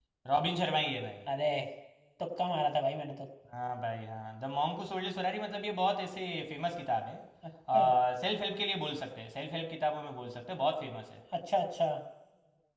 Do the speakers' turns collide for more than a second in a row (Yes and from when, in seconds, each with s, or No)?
No